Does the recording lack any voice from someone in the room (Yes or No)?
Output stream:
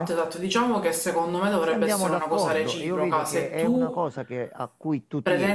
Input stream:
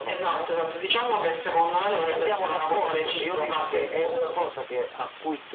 Yes